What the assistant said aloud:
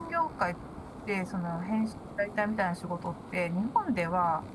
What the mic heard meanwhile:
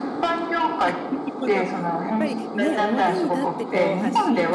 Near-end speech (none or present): present